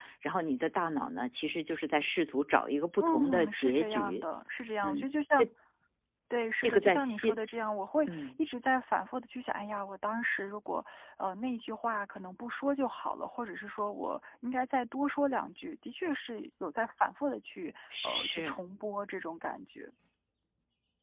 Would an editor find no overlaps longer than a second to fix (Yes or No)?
No